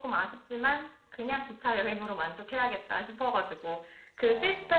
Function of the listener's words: listening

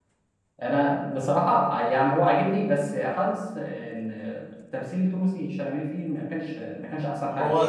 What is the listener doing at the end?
taking over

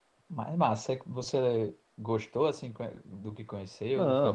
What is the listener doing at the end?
taking over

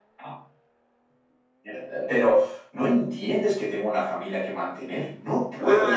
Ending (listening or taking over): taking over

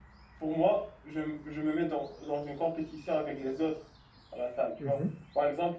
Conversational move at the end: listening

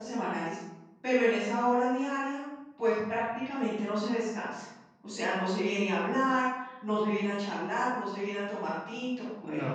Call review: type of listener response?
taking over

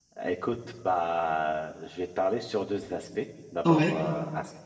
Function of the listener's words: listening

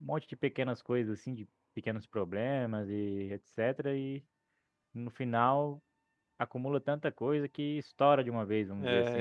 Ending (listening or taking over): taking over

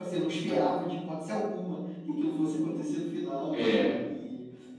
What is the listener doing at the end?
listening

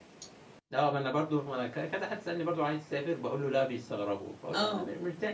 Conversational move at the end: listening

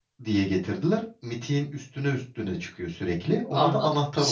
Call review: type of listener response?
taking over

